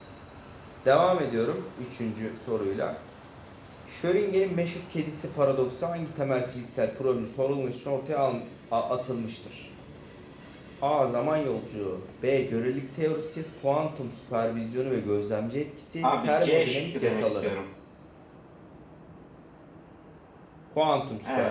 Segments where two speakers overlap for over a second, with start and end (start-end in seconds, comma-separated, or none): 16.0-17.5